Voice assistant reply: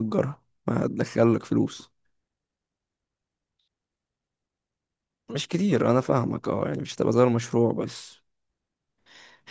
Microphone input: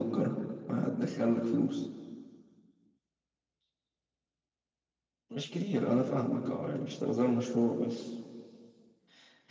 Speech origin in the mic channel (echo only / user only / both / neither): echo only